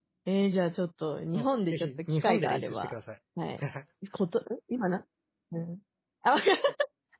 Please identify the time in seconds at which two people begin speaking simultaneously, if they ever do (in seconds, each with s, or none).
1.3 s